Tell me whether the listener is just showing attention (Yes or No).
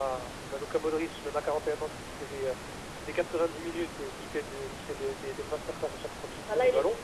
No